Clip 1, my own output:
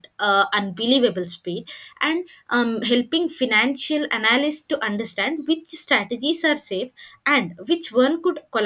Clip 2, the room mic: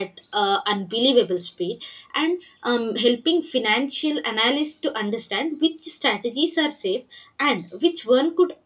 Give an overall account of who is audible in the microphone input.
echo only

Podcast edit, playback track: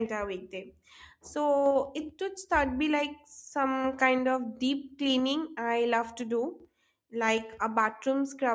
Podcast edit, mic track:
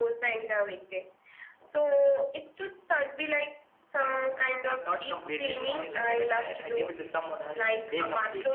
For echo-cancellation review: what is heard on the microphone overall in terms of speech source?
both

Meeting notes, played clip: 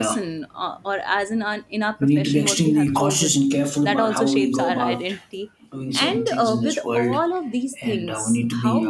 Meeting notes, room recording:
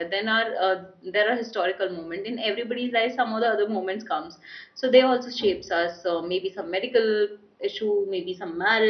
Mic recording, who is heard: user only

